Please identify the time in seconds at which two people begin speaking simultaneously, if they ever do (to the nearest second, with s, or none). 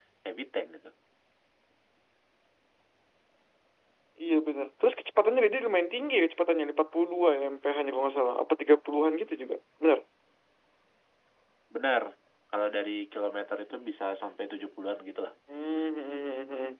none